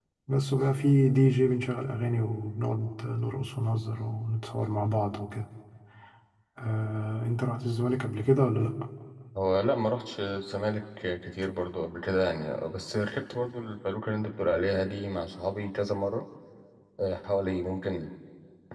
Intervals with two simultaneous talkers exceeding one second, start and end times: none

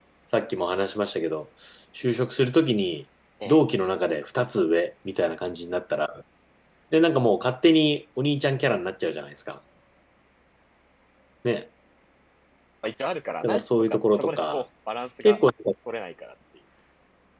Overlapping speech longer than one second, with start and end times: 13.4-14.6

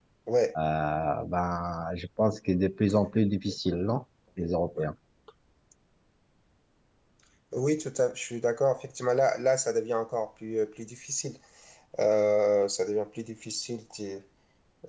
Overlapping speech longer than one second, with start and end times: none

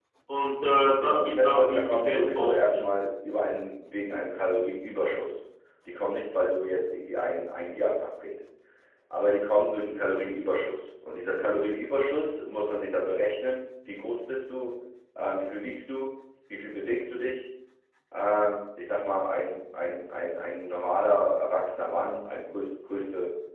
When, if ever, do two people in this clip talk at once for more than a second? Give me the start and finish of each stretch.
1.0-2.8

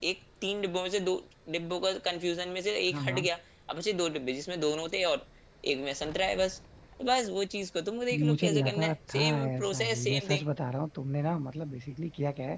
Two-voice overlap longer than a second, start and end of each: 8.1-10.4

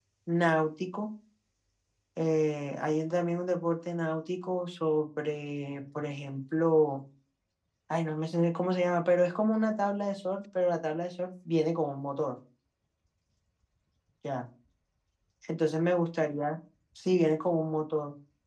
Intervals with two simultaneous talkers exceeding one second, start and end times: none

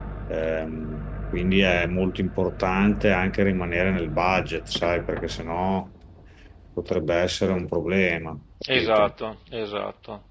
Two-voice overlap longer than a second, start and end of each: none

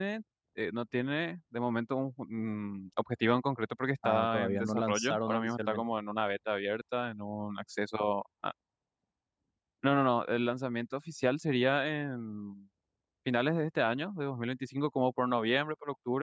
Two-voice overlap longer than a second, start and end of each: 4.0-5.8

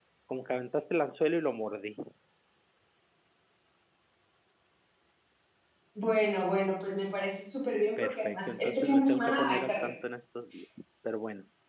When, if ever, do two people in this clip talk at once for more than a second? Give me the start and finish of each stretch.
8.0-9.9

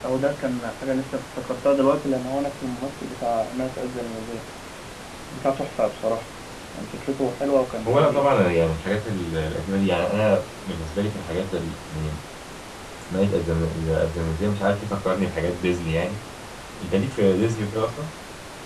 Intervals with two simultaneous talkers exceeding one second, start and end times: none

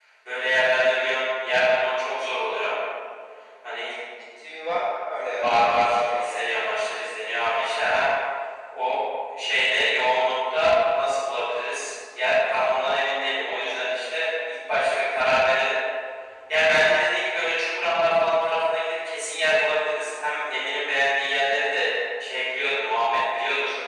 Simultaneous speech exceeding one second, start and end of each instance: 5.3-6.6

